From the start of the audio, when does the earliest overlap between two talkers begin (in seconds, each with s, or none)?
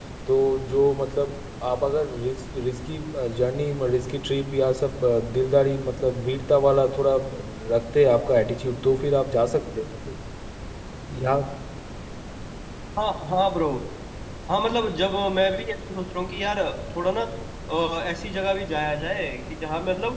none